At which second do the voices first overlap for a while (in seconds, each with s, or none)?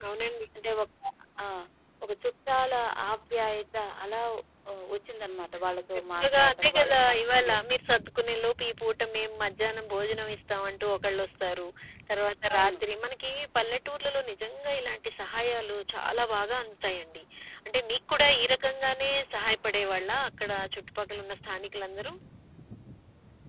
5.9 s